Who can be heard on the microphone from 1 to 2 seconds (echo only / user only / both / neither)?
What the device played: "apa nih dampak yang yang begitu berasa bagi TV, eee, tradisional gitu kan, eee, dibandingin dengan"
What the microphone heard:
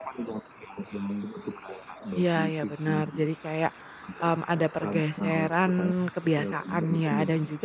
echo only